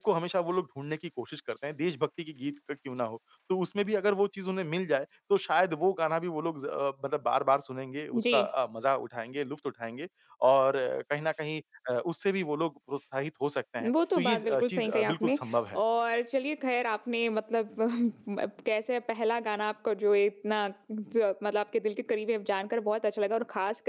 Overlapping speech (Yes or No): Yes